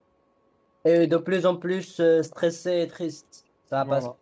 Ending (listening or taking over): listening